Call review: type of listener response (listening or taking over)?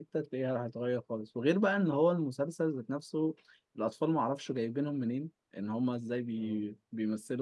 listening